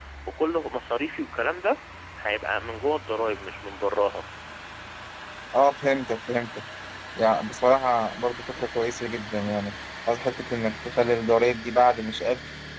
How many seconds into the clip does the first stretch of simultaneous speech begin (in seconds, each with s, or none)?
none